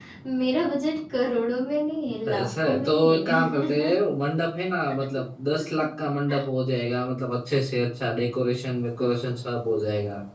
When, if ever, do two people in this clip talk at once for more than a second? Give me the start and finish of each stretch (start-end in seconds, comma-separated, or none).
2.3-4.0